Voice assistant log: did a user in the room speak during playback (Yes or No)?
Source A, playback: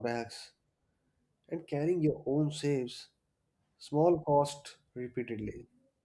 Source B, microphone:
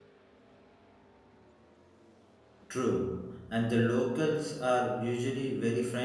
Yes